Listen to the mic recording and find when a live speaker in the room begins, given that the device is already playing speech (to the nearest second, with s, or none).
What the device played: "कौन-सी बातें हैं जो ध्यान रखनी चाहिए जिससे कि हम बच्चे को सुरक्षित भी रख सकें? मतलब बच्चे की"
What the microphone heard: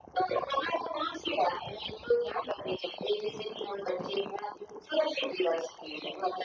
none